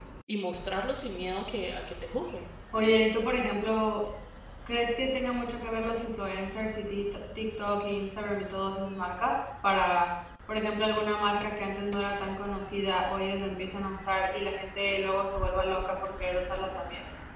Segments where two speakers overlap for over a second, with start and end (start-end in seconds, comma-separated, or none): none